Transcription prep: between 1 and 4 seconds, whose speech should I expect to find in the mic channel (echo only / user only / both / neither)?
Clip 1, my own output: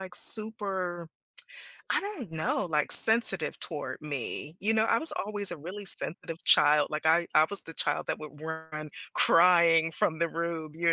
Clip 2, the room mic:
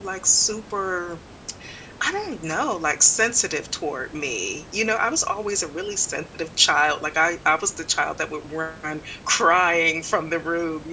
echo only